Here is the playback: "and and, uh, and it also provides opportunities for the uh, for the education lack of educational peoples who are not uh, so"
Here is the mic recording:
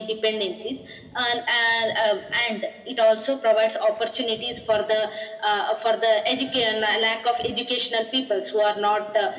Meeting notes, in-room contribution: none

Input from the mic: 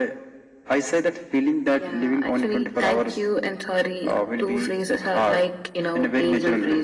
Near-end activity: none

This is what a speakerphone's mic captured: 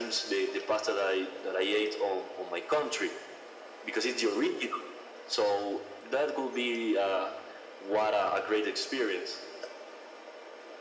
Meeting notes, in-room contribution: none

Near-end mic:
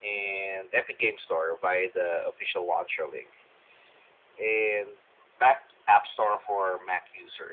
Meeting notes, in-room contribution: none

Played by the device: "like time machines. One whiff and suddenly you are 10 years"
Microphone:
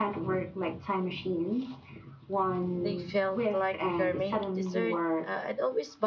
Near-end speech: present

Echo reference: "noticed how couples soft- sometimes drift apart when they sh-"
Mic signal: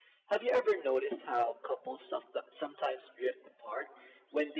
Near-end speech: none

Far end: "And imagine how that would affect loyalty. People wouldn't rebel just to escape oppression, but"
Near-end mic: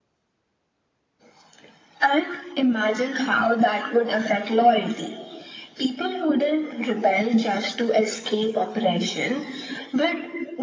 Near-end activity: none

